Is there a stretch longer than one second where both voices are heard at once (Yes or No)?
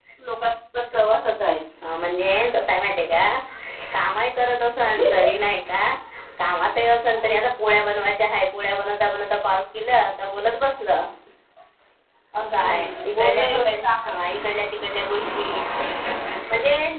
Yes